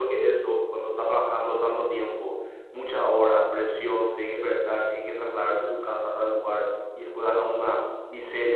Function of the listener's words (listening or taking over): listening